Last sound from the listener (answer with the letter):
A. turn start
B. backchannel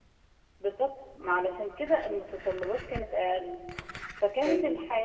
B